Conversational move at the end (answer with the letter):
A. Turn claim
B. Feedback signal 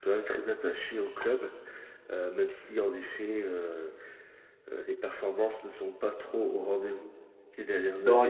A